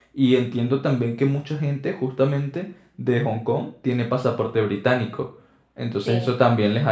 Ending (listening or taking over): listening